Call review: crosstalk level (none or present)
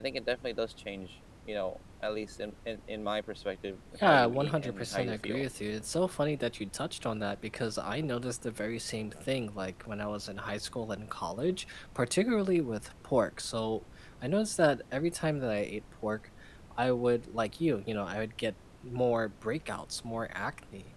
present